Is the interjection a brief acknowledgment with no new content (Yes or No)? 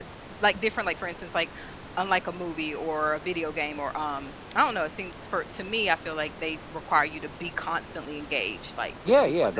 No